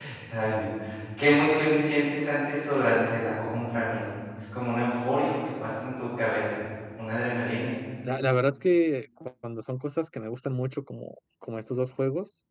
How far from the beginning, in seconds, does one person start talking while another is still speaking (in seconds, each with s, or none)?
none